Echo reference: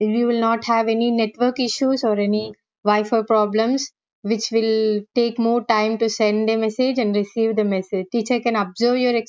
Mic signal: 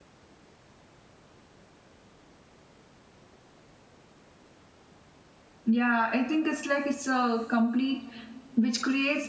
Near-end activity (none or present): present